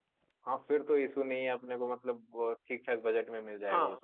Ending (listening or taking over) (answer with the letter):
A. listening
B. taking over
B